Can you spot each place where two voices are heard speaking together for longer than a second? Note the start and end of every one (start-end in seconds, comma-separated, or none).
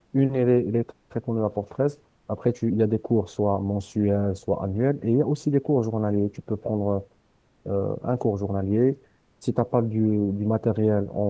none